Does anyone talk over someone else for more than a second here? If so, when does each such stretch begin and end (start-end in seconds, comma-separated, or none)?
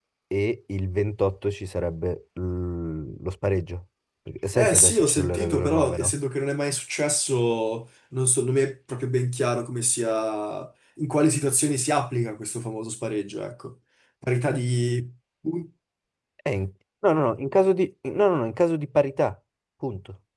4.5-6.2